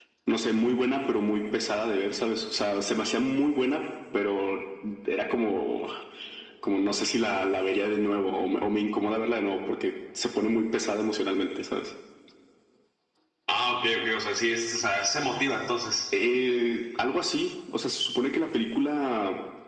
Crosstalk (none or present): none